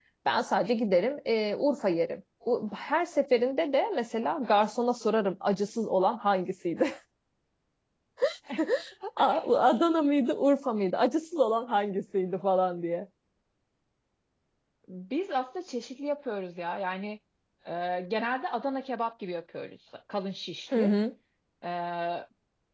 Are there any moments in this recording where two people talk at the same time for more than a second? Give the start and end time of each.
none

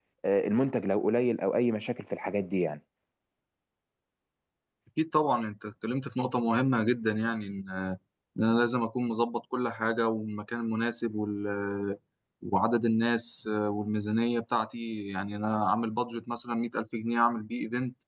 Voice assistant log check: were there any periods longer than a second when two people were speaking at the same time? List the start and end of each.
none

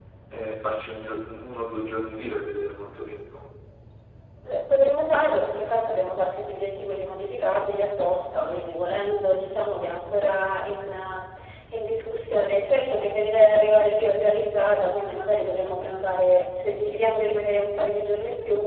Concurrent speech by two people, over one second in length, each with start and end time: none

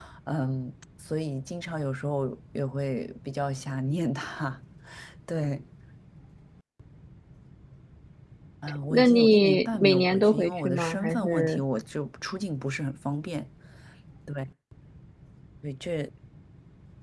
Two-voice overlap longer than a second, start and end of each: 8.9-11.6

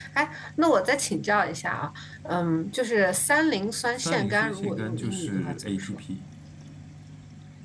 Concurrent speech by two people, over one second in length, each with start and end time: 4.0-6.0

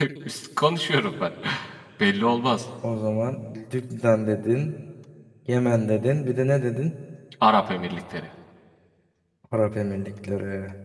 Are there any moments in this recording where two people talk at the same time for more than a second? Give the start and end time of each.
none

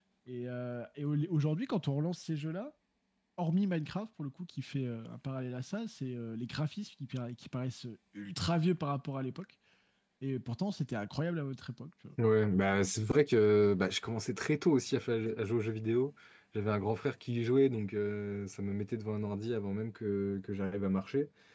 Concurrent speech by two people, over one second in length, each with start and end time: none

